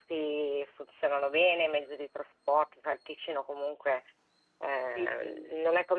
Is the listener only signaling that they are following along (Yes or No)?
Yes